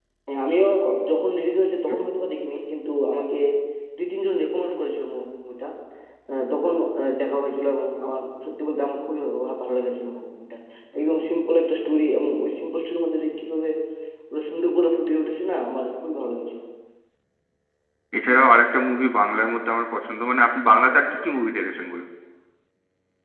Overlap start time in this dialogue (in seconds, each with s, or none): none